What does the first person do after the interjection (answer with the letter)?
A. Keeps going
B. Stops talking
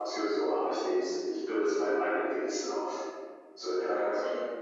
B